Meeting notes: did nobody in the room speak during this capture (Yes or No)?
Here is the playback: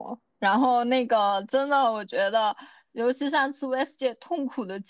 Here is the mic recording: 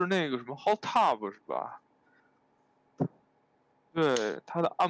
No